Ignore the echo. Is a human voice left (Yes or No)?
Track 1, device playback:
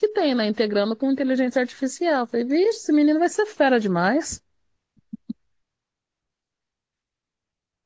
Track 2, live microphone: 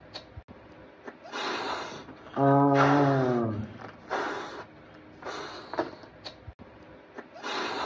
Yes